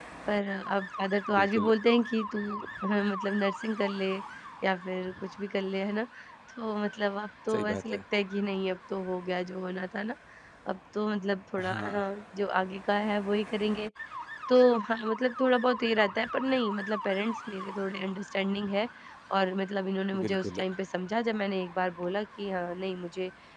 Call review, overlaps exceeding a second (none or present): none